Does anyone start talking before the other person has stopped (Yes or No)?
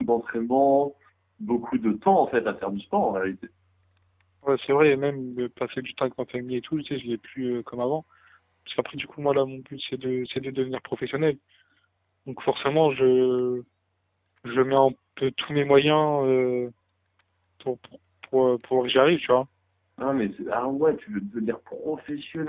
No